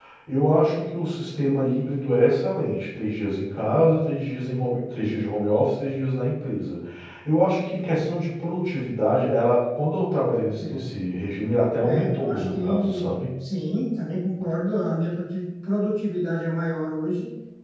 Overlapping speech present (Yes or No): Yes